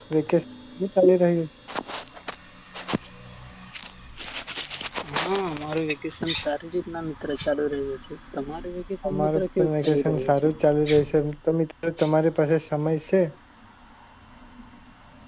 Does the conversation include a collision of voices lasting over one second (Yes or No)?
Yes